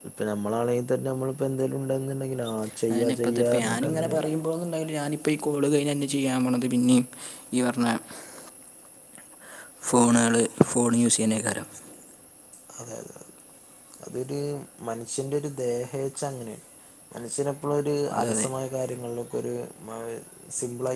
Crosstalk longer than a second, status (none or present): present